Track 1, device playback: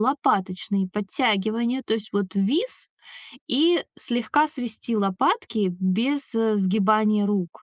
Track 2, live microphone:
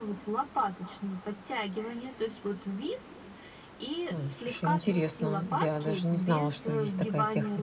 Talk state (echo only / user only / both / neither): both